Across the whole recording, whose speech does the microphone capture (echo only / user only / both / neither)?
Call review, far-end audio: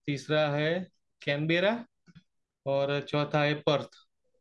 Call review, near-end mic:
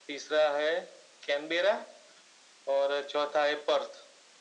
echo only